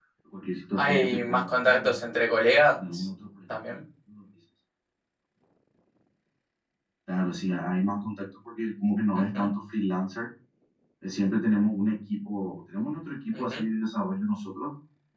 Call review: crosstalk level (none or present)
present